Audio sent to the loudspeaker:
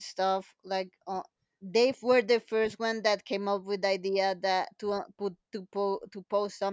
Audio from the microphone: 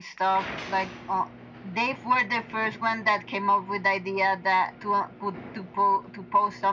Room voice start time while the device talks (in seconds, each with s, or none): none